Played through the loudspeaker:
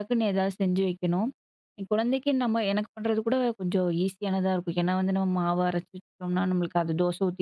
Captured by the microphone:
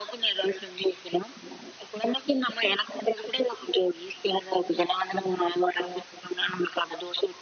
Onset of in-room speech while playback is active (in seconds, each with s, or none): none